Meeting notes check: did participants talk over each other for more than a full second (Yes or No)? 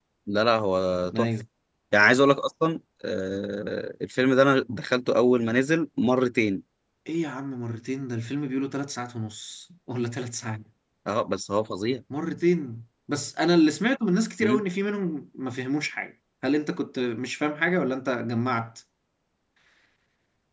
No